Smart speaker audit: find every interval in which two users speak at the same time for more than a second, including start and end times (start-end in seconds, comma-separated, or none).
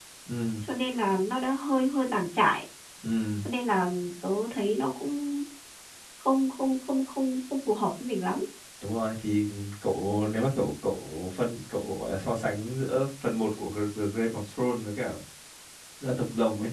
none